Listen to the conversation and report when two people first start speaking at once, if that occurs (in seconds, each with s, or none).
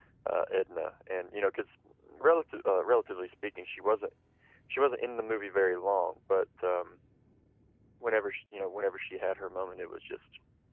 none